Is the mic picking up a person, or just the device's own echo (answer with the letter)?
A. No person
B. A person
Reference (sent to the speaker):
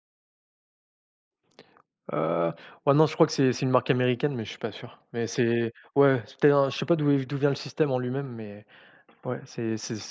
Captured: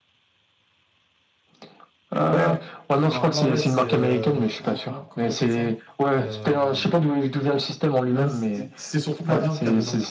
B